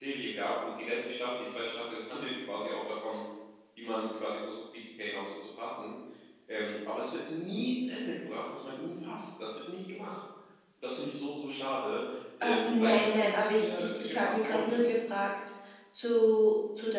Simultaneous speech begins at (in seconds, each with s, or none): 12.4 s